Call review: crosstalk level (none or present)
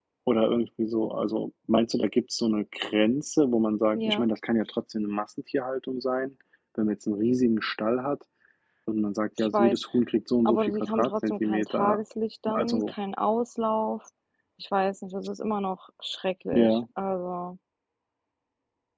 present